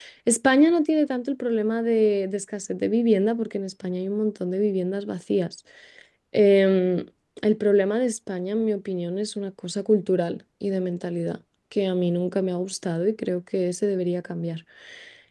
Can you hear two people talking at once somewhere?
No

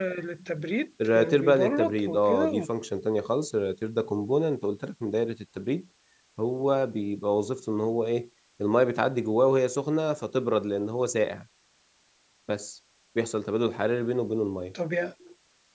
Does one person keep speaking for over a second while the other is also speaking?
Yes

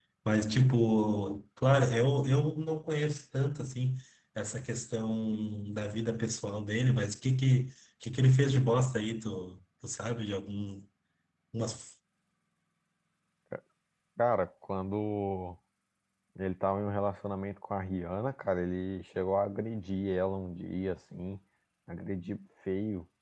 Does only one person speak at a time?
Yes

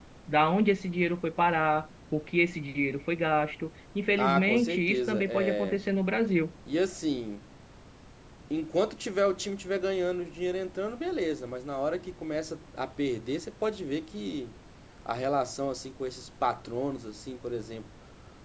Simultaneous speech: Yes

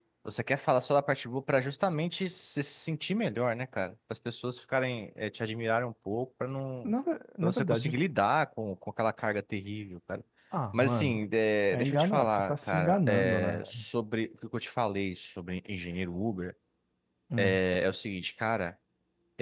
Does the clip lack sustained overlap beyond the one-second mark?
No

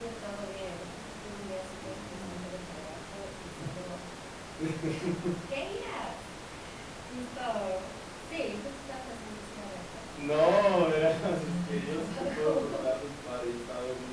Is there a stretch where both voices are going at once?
Yes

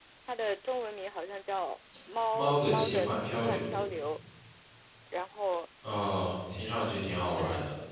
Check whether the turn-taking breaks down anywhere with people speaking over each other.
Yes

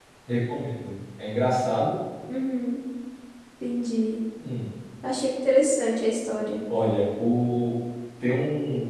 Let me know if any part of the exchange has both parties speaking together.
No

